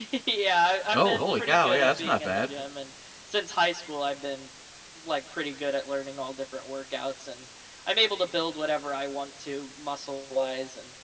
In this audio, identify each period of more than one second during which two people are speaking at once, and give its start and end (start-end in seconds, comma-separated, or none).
0.9-2.5